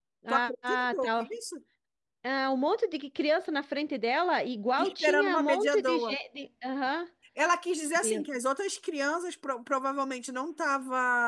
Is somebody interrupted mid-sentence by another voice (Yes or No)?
Yes